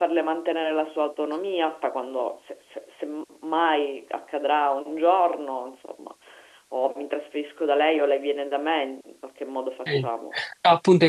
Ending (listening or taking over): taking over